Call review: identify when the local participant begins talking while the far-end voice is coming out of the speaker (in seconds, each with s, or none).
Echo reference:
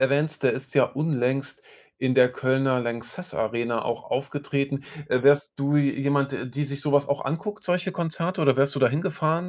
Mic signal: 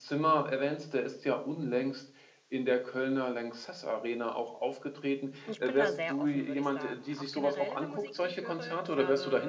5.4 s